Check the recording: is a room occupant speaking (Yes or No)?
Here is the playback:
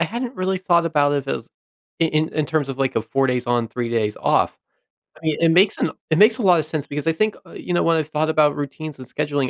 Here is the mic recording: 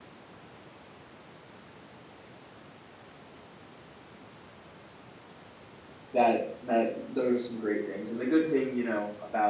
Yes